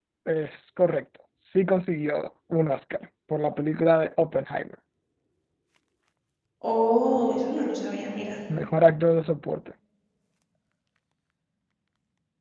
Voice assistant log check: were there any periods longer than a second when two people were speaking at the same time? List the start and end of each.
none

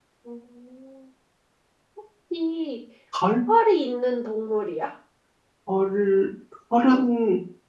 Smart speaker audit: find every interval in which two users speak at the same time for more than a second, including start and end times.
none

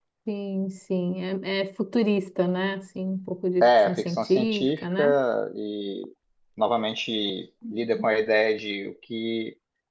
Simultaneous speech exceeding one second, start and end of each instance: 3.6-5.0

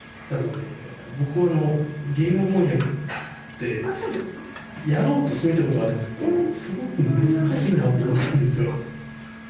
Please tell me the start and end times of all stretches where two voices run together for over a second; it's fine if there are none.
7.0-8.3

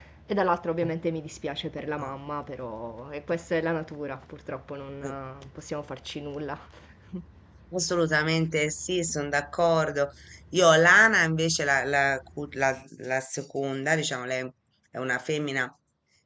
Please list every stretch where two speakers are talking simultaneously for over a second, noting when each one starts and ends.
none

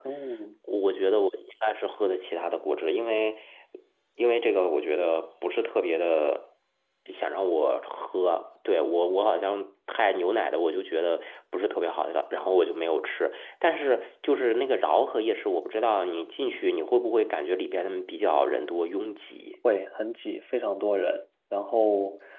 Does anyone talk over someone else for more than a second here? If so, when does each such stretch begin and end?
none

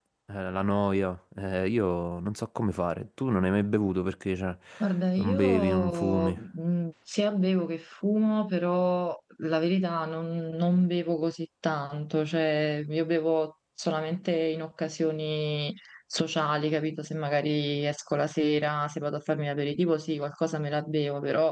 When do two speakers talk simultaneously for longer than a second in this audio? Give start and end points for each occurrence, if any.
5.2-6.4

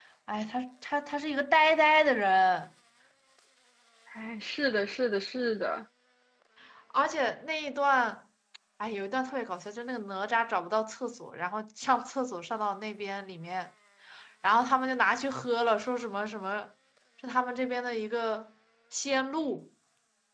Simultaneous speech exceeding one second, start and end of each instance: none

